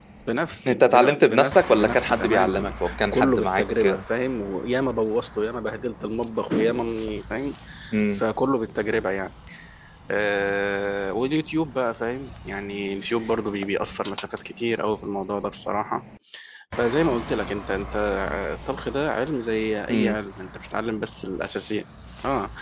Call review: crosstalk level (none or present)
present